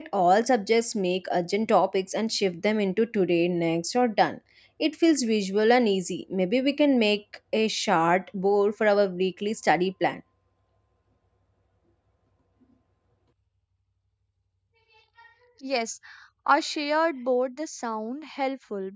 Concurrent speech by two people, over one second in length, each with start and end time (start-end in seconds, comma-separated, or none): none